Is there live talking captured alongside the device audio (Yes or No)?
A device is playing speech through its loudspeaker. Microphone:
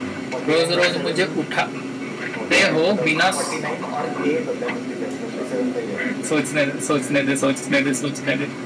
Yes